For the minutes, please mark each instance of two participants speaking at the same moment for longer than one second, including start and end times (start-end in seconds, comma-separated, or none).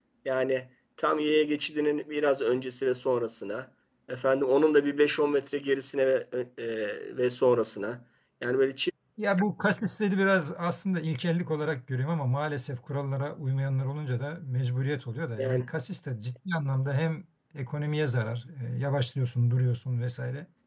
none